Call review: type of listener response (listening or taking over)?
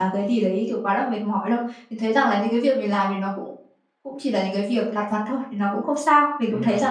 taking over